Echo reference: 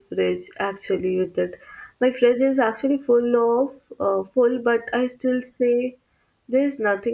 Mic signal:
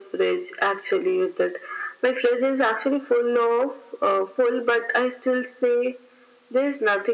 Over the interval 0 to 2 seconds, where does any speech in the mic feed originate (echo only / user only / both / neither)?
echo only